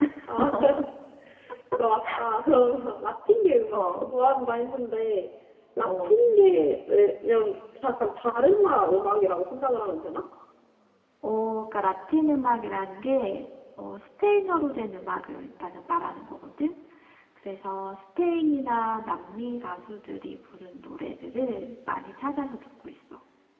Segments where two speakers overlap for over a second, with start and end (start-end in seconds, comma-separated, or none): none